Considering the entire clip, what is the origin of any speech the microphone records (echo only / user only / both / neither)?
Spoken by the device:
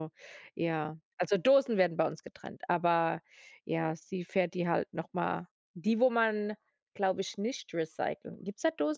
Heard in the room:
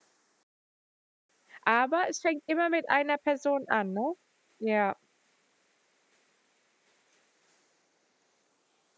user only